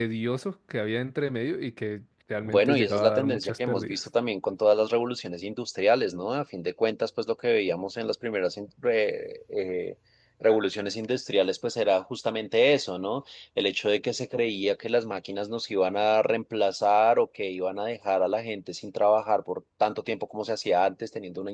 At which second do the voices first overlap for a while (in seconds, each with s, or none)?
2.5 s